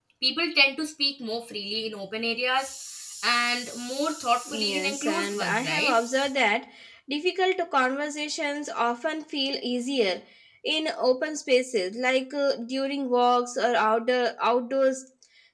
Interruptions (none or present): present